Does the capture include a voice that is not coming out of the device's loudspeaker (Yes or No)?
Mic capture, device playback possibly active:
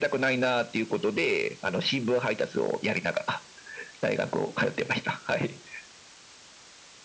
No